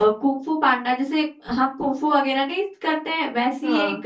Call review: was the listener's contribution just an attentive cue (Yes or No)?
Yes